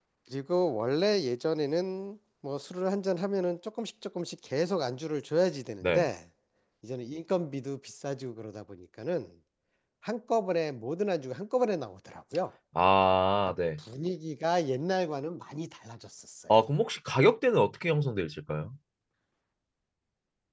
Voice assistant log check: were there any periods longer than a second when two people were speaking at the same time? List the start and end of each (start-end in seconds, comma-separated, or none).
none